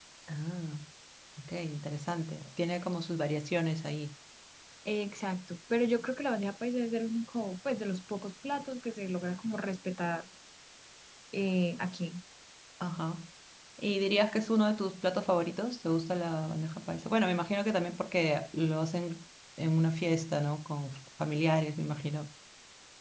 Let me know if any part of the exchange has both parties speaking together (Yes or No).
No